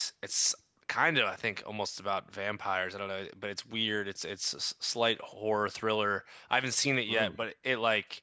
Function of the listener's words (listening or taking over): listening